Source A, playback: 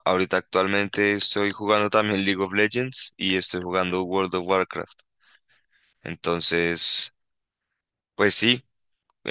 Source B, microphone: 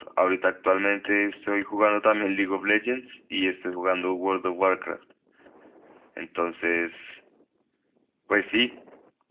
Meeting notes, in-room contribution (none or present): none